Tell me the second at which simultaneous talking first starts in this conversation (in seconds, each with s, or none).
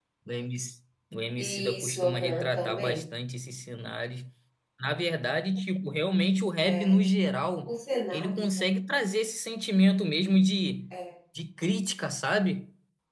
1.4 s